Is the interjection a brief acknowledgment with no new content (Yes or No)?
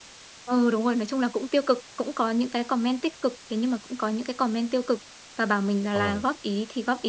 Yes